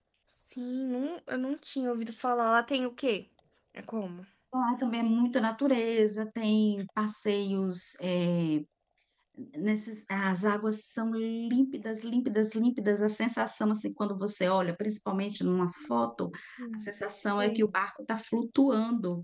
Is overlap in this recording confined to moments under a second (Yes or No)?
Yes